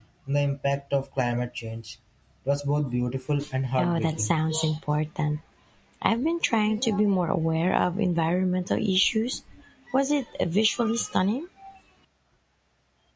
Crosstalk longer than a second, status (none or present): none